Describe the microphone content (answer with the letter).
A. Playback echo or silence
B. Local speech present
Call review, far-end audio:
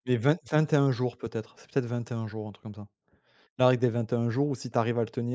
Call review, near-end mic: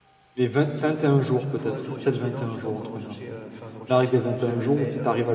B